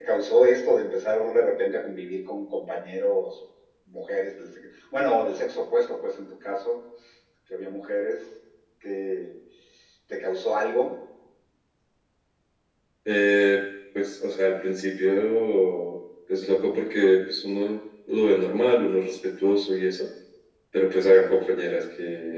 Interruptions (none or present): none